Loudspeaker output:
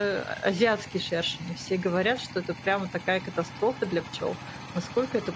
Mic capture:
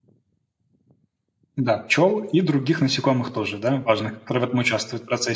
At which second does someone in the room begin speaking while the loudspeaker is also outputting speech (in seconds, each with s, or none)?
1.6 s